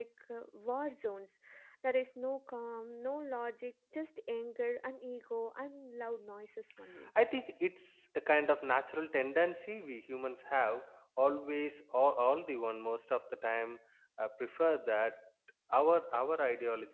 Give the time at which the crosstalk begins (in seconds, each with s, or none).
none